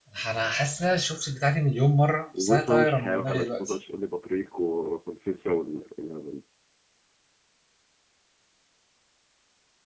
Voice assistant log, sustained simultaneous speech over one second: present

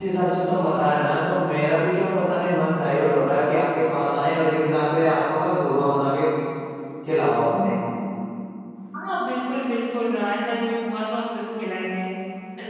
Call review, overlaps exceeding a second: none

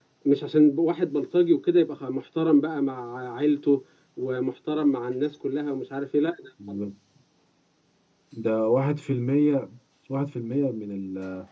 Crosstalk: none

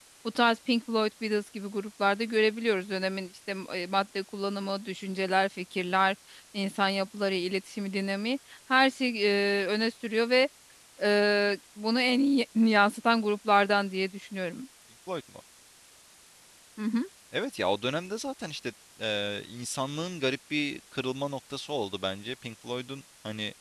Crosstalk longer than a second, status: none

